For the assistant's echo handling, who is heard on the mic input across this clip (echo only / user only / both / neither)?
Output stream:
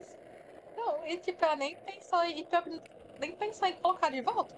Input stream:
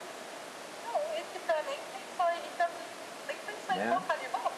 both